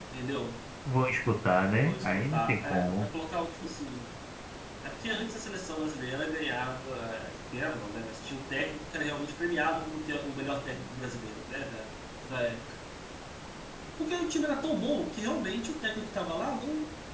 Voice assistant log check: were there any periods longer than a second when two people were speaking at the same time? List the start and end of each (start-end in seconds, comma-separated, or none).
1.8-3.1